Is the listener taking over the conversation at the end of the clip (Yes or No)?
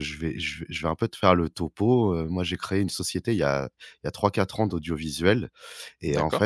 No